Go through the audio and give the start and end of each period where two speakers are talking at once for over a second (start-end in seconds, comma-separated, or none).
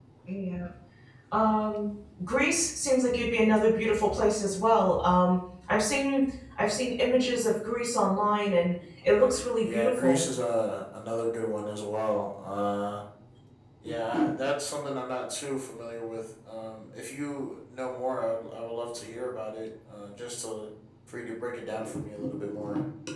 9.0-10.2